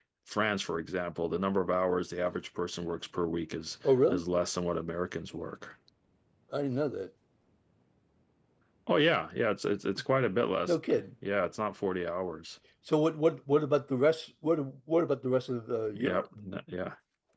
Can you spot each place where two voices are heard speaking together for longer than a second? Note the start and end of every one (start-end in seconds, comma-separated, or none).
none